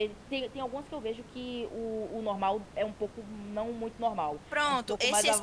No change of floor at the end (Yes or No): No